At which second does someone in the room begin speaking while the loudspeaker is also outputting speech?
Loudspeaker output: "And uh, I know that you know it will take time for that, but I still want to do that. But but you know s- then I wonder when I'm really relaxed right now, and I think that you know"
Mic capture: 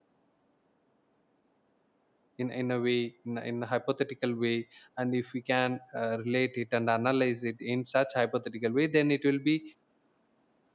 2.4 s

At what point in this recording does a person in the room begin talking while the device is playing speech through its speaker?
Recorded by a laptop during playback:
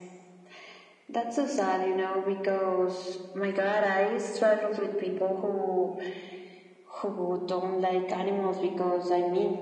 none

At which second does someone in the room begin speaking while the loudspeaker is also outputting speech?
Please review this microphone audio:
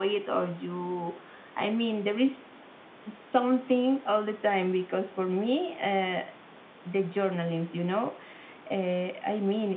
none

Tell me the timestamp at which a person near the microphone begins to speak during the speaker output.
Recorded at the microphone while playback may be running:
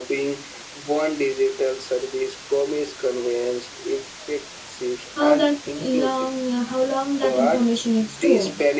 5.2 s

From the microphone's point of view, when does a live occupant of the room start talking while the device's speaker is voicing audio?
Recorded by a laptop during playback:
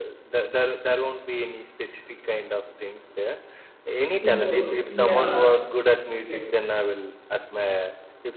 4.2 s

